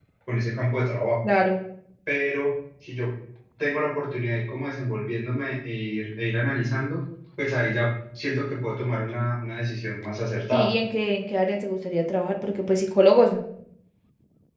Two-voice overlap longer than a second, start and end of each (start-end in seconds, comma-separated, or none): none